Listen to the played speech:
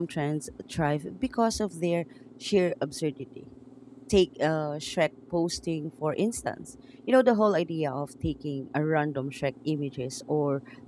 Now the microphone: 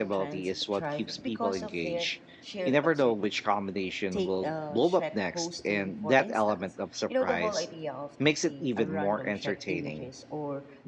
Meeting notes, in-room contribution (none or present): present